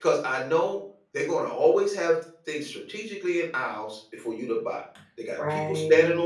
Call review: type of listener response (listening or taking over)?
listening